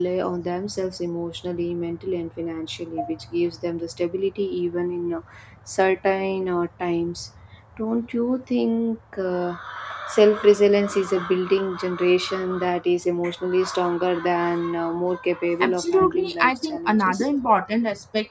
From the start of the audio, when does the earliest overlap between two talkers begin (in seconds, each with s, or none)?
15.6 s